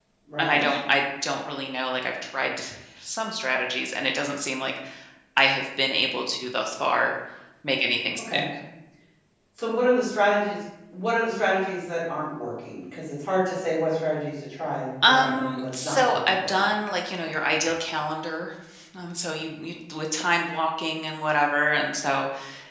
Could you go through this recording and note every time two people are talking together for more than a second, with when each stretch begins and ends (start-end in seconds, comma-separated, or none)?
15.1-16.7